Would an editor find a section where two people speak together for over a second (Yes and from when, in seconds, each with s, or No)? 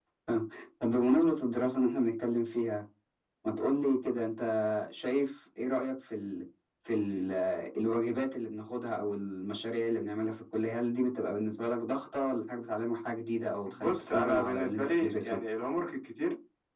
Yes, from 13.7 s